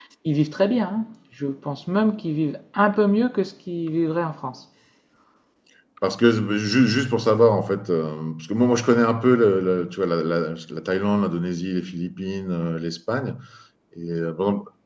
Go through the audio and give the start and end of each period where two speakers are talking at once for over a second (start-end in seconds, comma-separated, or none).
none